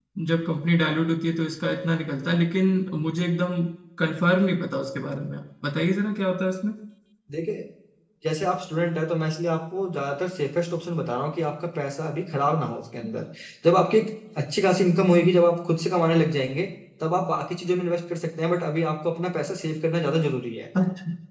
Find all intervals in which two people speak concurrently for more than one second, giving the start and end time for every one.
none

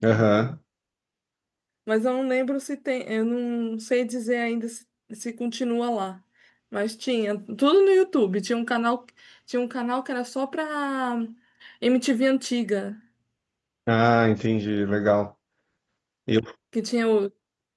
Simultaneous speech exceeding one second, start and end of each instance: none

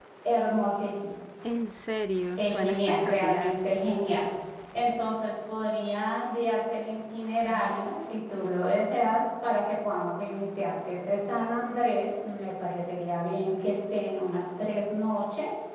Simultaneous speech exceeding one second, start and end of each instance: 2.4-3.6

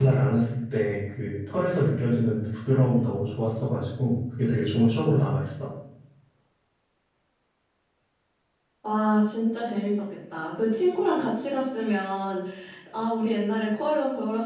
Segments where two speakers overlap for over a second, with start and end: none

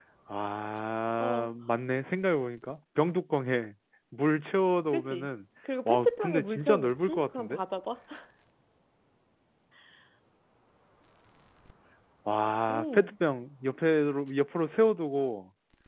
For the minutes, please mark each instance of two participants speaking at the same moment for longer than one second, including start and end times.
5.8-7.6

